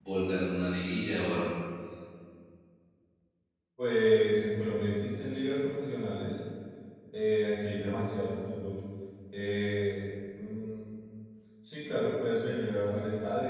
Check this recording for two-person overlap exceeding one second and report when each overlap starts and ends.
none

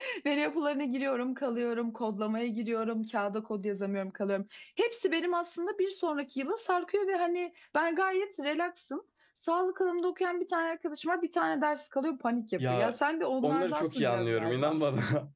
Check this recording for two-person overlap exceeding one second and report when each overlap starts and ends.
13.4-14.8

